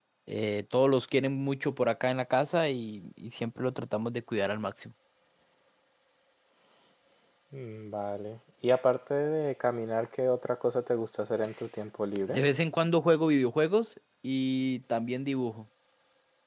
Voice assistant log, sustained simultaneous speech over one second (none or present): none